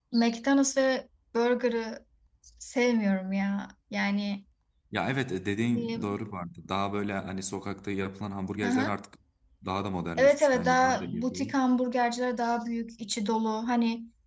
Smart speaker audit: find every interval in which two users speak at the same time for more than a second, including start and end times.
10.2-11.4

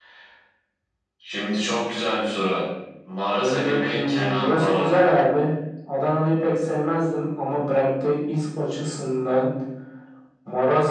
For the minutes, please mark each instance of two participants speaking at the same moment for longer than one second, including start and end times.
3.4-5.1

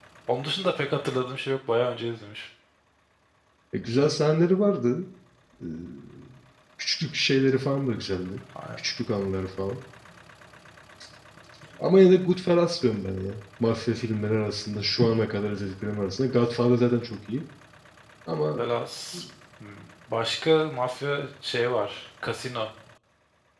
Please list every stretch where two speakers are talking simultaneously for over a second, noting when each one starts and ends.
none

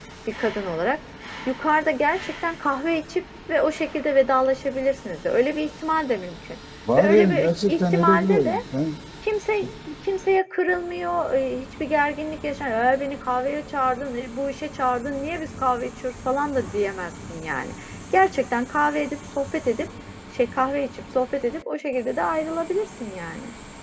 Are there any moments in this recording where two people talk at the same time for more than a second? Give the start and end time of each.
7.0-8.6

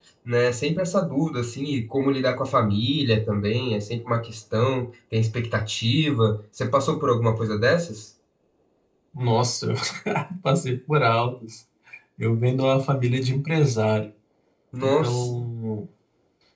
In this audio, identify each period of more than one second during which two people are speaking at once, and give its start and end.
none

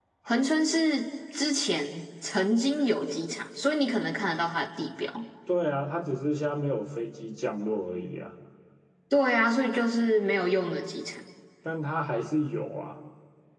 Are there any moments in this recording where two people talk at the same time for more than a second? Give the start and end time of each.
none

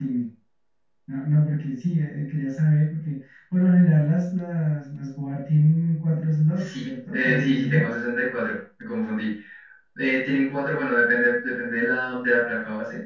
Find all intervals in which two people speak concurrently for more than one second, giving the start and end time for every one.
6.6-7.9

